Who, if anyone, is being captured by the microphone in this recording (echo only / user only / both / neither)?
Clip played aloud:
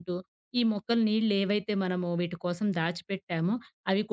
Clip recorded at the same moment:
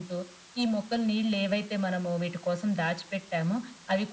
echo only